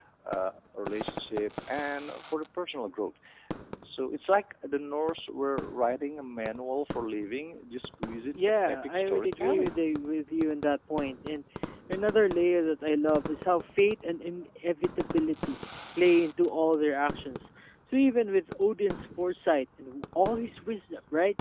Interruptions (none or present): present